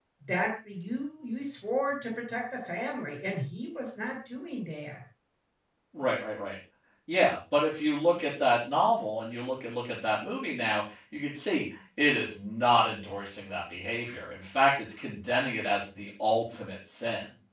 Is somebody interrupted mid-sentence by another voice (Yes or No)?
No